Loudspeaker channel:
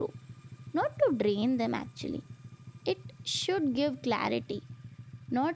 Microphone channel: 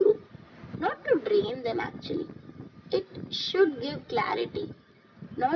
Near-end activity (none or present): none